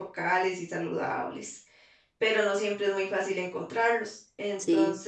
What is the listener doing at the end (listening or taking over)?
listening